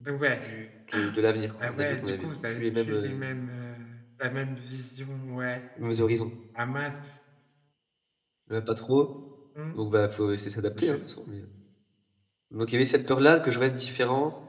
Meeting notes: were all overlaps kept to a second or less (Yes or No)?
No